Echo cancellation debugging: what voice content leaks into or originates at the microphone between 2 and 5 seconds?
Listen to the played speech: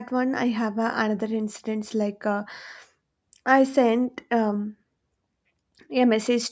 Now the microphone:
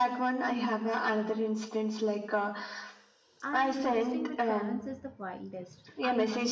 both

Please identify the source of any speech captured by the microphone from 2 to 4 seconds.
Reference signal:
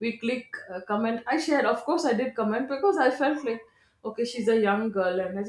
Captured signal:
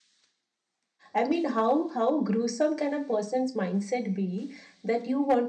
user only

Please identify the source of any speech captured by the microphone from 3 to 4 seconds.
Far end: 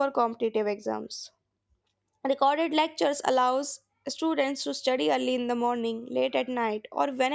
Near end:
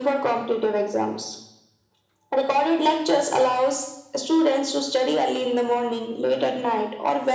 echo only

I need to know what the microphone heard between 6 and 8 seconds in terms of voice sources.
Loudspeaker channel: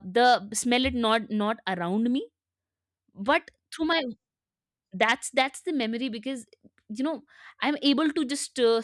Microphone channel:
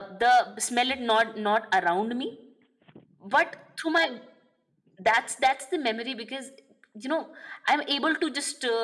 echo only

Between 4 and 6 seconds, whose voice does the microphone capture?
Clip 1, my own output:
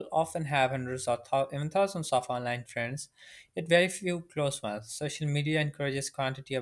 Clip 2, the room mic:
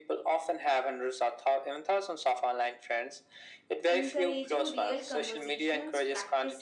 both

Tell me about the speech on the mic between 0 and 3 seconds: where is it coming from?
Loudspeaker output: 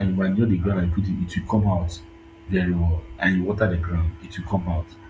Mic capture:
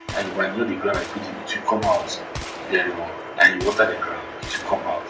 echo only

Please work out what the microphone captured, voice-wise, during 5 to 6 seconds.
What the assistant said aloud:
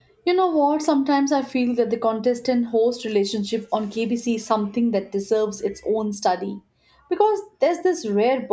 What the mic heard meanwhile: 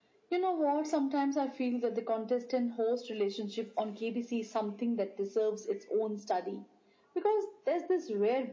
echo only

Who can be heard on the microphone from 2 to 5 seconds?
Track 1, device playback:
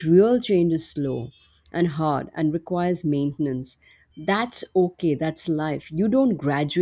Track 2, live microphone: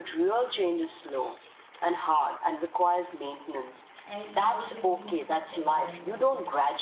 both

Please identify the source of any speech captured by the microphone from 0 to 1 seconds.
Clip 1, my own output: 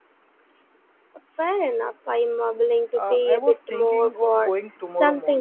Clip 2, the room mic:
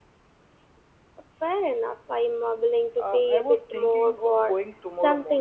neither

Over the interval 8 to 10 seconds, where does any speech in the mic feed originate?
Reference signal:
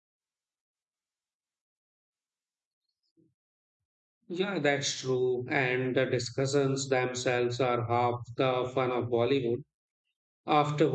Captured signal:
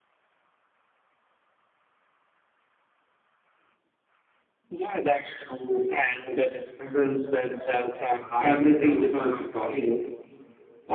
both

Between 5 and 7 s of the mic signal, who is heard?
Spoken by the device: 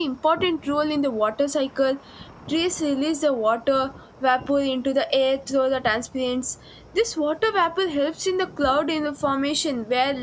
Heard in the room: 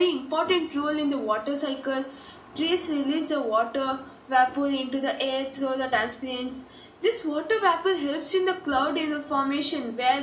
echo only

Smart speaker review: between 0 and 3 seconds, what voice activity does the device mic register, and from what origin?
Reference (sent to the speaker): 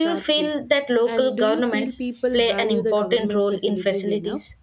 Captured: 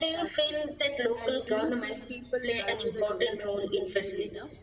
echo only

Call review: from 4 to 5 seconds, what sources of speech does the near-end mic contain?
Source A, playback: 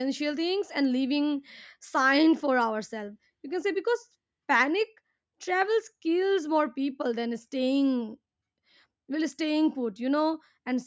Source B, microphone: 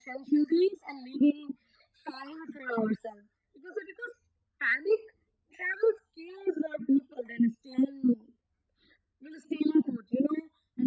echo only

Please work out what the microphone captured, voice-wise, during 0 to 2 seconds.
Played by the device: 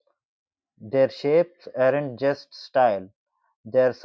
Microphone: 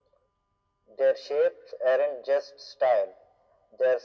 echo only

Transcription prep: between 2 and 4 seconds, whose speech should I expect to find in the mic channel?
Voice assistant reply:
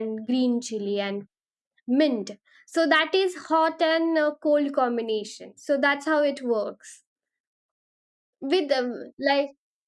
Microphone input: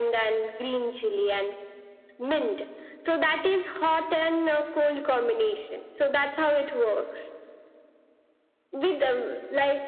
echo only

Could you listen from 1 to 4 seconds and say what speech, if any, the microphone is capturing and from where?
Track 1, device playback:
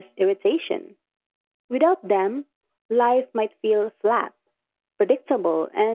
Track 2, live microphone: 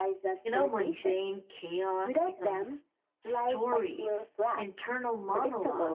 both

